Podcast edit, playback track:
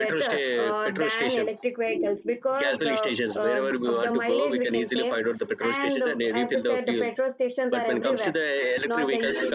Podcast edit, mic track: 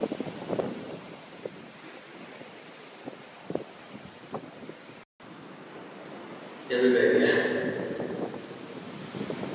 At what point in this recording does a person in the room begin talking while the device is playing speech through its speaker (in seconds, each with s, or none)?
6.7 s